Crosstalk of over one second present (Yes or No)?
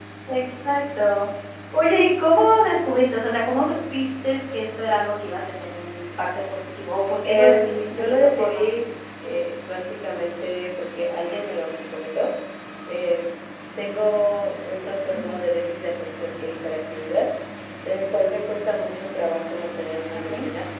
Yes